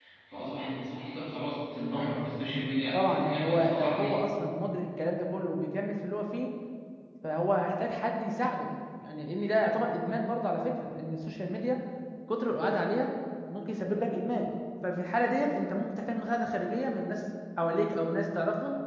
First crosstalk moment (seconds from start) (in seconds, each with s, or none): 2.9 s